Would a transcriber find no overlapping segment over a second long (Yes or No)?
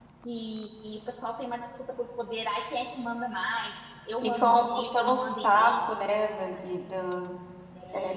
No